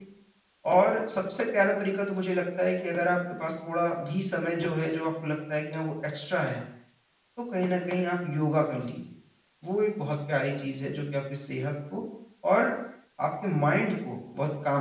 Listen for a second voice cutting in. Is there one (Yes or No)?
No